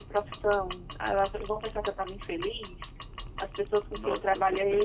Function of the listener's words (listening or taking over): taking over